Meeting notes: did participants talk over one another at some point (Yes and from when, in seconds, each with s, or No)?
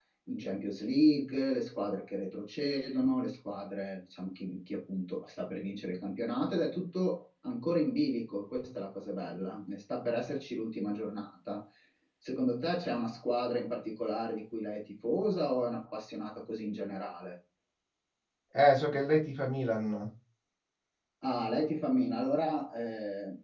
No